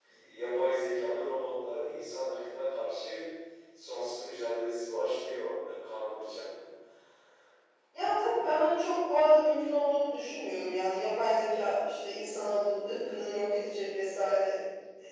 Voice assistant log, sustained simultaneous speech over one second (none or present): none